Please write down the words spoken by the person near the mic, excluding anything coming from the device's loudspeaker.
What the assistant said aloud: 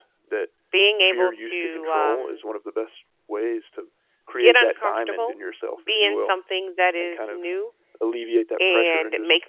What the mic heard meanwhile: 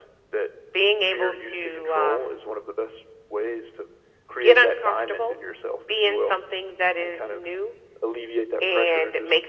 none

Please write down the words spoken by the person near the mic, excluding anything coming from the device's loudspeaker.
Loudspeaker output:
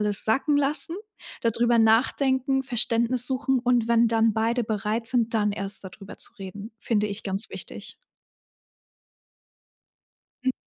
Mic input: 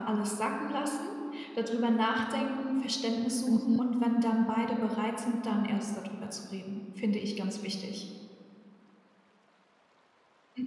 Mhm.

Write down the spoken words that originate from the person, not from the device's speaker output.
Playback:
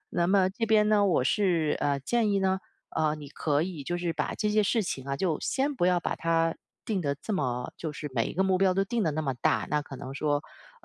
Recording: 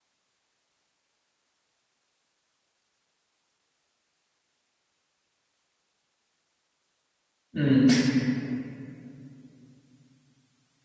嗯，

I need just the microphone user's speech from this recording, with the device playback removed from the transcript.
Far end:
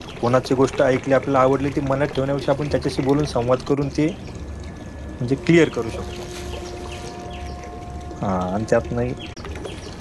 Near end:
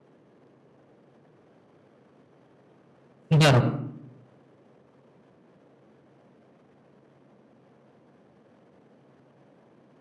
बरोबर,

